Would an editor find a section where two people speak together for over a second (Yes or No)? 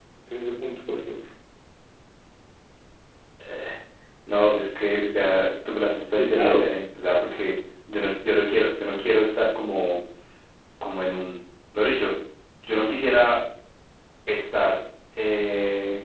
No